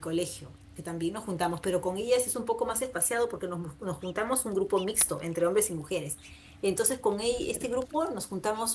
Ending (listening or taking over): listening